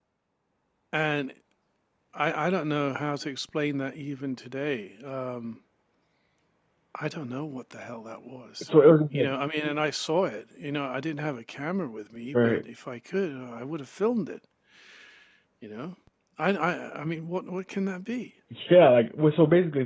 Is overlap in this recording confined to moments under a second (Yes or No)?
Yes